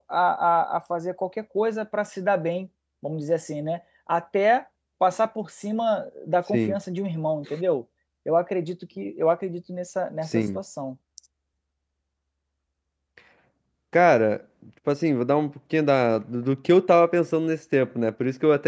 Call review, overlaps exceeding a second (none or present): none